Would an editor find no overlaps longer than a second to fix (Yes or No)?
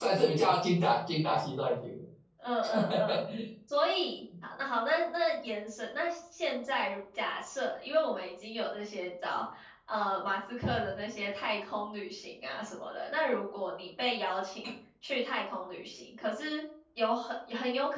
Yes